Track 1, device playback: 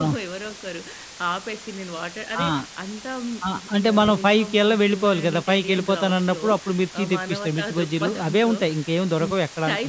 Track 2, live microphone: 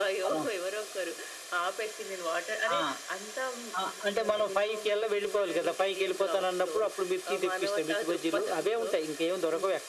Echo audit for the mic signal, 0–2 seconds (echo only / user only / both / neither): echo only